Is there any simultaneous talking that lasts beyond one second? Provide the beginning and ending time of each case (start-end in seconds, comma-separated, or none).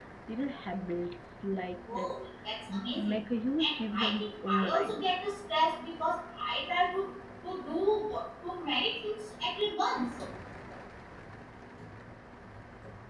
3.6-5.1